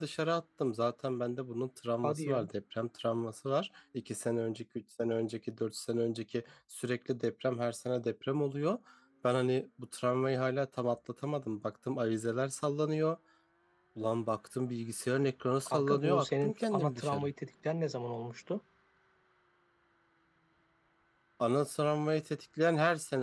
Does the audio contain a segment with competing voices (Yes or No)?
Yes